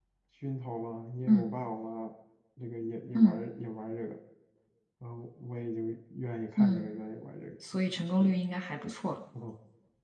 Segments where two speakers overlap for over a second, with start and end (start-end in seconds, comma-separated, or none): none